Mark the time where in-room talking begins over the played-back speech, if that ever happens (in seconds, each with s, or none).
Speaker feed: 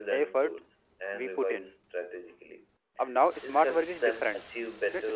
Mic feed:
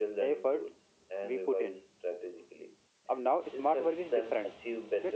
none